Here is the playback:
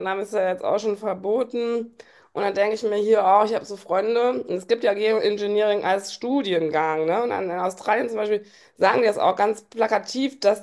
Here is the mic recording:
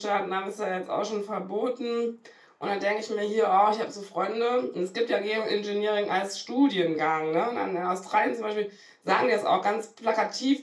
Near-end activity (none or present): none